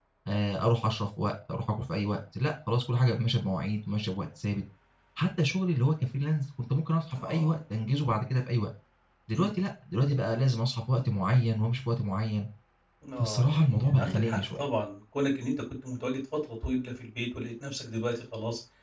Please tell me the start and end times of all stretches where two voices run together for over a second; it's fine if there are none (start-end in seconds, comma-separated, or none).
13.2-14.7